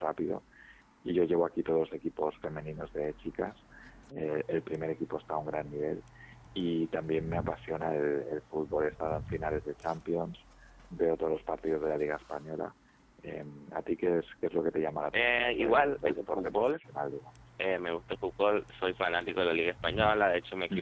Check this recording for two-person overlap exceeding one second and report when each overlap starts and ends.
15.1-16.8

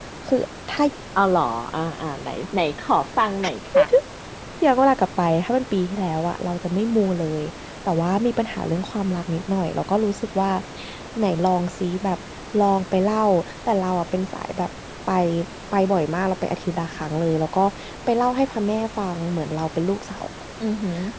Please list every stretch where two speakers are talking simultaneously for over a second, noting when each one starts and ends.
none

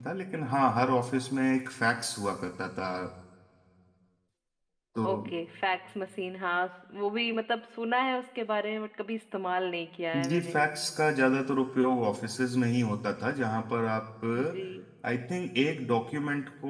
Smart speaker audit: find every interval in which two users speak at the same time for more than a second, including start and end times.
none

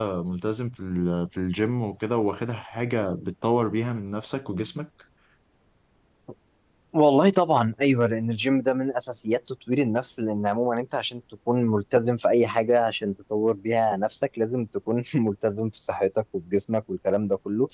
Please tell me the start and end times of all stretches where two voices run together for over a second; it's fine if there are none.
none

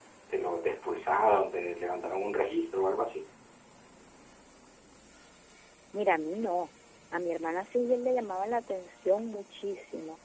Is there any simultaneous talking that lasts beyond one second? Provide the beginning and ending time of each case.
none

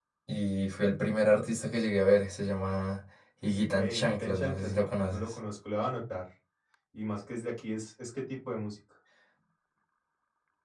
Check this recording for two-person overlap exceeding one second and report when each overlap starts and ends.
3.7-5.4

